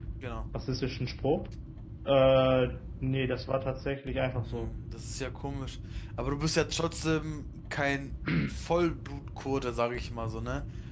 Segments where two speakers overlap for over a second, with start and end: none

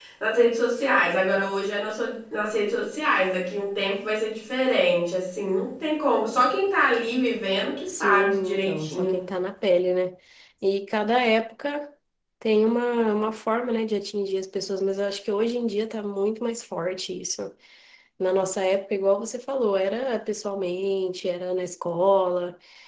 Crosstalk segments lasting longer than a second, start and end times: 7.9-9.2

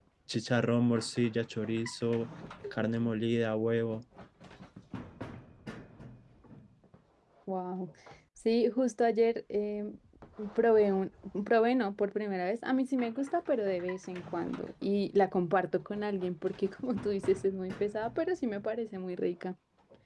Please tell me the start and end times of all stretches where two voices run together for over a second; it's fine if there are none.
none

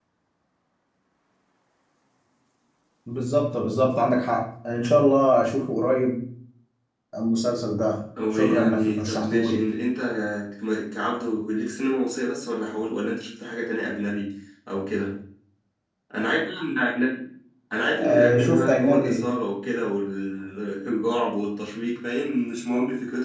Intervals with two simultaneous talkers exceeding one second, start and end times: 8.3-9.6, 18.0-19.2

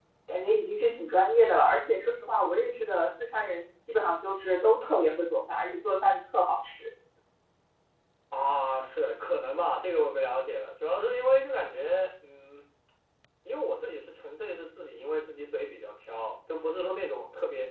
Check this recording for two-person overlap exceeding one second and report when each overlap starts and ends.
none

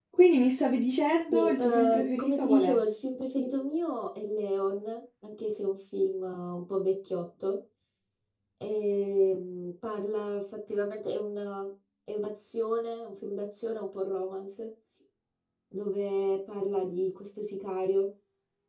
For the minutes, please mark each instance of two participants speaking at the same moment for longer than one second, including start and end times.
1.3-2.8

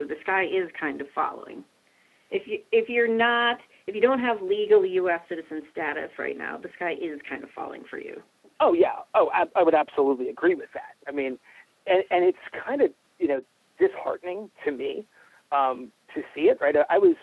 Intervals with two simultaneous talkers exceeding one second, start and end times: none

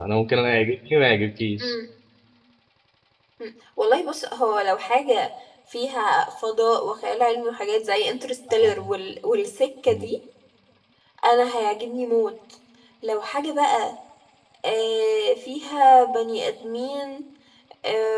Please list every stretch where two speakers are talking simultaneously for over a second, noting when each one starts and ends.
none

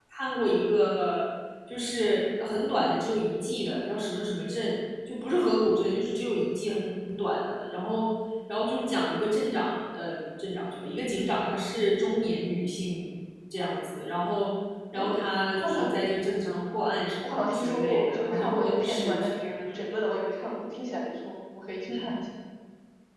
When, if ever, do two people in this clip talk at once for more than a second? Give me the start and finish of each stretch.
17.2-19.3

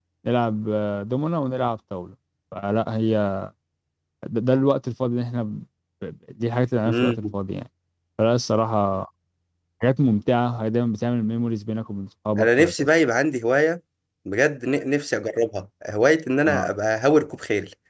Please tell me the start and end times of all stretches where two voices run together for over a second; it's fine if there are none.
none

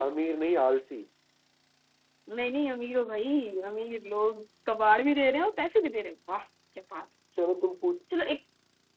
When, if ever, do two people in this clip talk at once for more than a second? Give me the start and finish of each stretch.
none

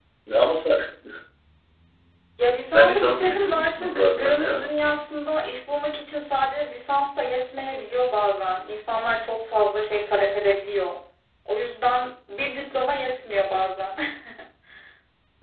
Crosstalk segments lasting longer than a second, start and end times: 2.7-4.7

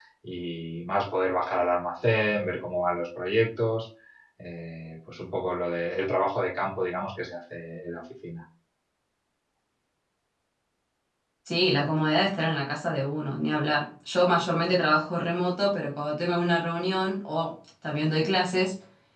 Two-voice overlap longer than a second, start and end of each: none

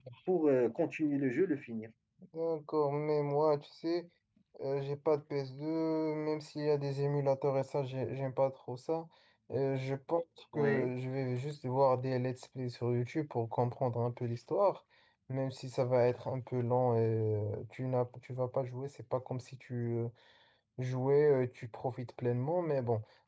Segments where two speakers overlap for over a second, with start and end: none

